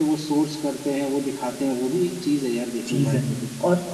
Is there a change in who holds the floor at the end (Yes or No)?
Yes